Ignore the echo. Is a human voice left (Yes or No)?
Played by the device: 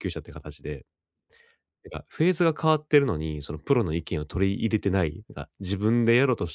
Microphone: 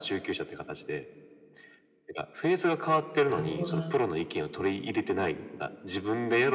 Yes